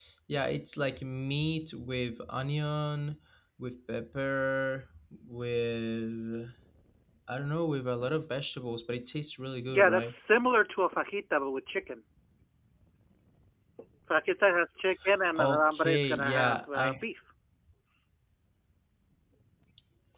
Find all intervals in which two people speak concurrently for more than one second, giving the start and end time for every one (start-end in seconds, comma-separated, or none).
15.3-17.0